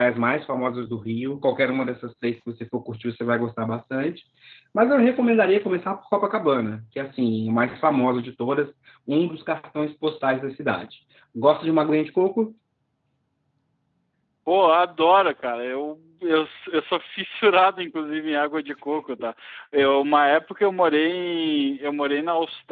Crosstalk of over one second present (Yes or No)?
No